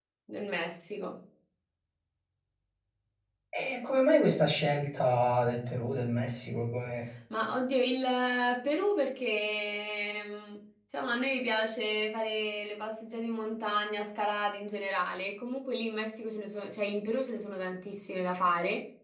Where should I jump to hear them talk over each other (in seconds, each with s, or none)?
none